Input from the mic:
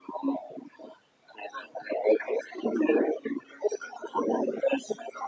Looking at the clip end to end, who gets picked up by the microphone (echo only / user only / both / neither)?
echo only